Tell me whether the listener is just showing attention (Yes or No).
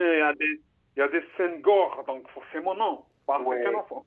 No